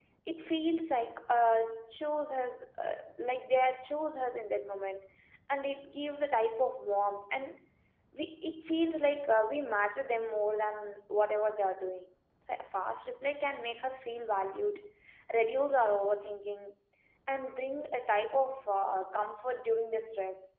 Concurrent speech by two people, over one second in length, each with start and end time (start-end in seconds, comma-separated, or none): none